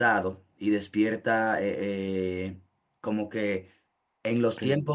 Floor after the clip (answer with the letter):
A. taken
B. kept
B